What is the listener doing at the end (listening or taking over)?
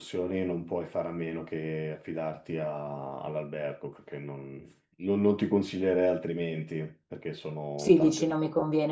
taking over